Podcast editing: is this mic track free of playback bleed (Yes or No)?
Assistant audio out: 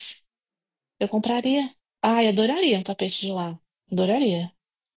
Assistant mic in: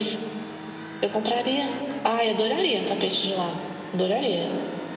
No